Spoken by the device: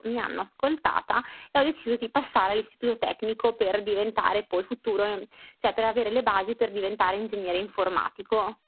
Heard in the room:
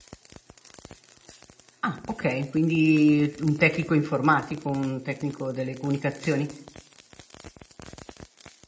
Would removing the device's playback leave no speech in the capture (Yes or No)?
No